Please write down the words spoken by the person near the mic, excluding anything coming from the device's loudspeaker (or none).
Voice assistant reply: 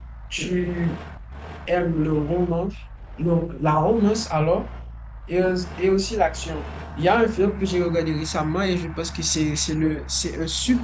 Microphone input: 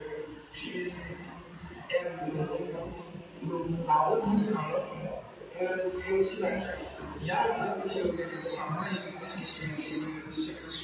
none